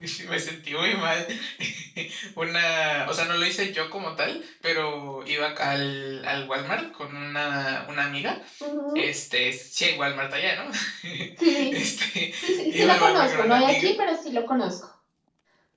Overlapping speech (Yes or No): Yes